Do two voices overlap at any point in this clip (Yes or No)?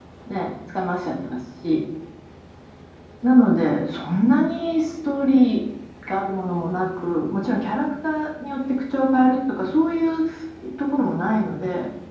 No